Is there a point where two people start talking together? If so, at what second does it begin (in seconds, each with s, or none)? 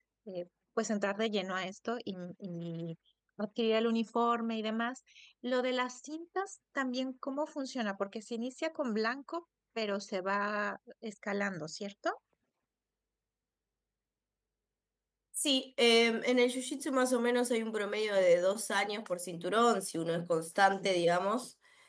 none